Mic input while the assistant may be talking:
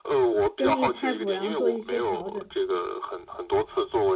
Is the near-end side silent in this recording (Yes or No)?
No